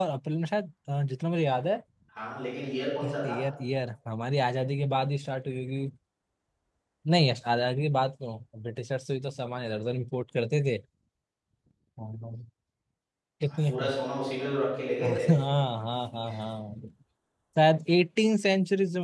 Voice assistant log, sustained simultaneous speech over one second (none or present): none